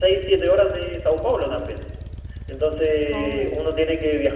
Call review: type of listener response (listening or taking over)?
listening